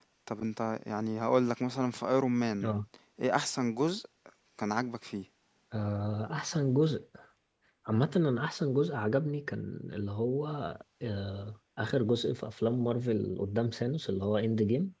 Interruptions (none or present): none